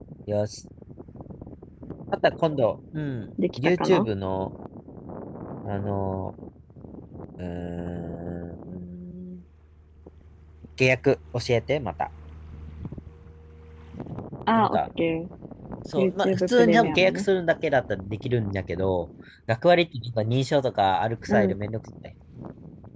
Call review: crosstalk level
present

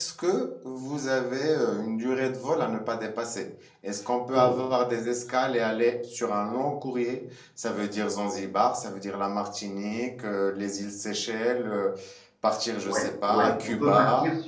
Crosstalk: present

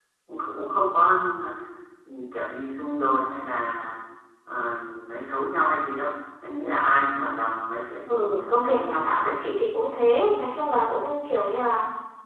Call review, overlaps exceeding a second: present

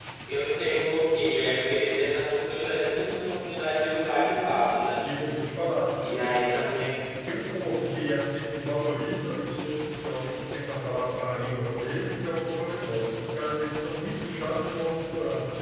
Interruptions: none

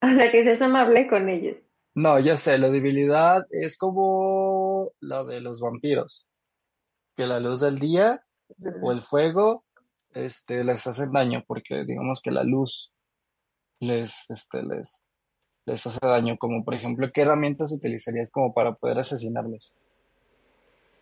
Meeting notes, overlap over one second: none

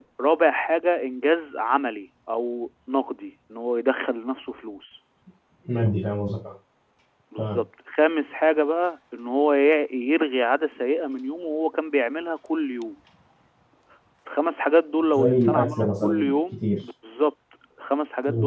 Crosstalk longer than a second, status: present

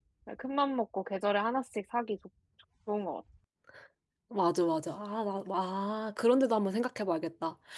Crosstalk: none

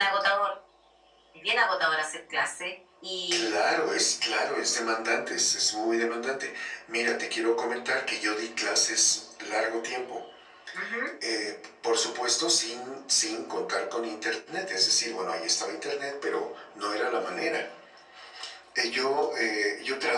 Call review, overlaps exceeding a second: none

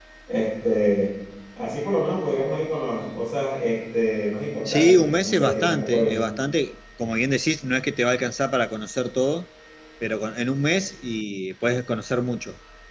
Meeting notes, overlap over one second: present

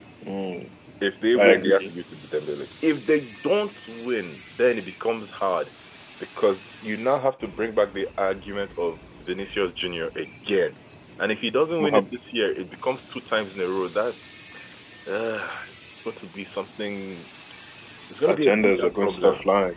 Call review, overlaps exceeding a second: present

